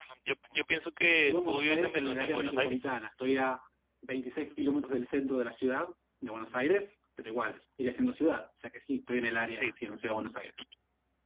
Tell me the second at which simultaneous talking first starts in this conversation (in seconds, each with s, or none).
1.2 s